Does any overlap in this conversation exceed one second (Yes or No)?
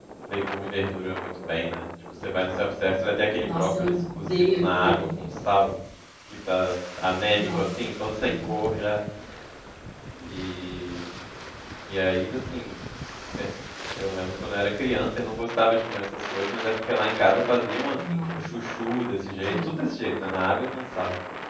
Yes